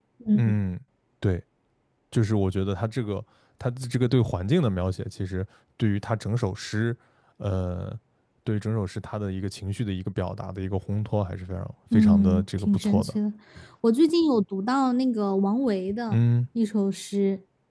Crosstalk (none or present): present